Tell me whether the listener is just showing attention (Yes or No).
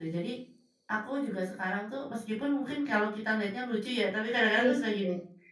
Yes